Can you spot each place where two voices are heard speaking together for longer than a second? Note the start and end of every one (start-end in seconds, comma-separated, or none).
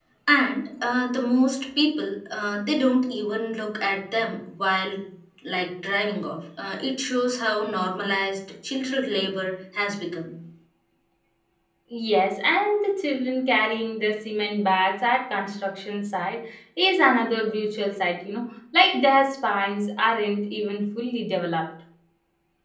none